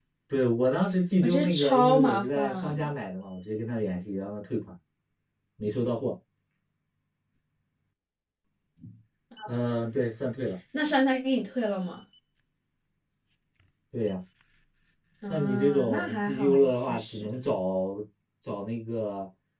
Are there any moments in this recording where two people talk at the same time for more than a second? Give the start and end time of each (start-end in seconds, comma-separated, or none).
1.2-2.8, 15.3-17.3